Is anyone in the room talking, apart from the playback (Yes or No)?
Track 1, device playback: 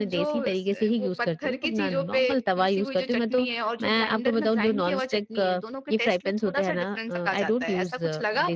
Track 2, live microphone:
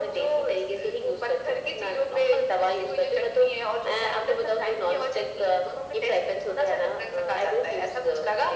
No